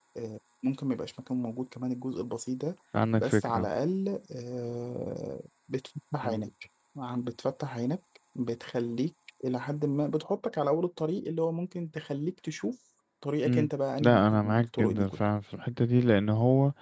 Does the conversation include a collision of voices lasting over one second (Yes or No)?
Yes